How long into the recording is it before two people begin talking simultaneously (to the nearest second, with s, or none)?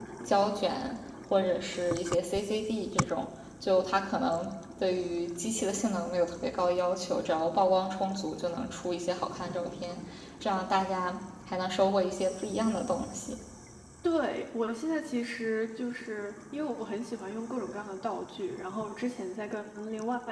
none